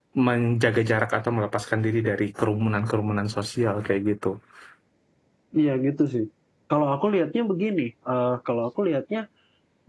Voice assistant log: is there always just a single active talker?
Yes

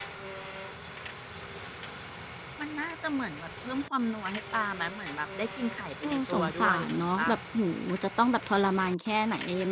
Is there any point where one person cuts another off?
Yes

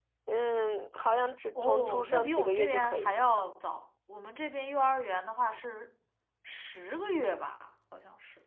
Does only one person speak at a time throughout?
No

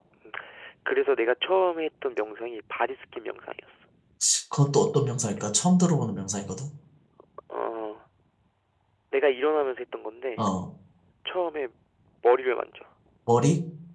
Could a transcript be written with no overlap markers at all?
Yes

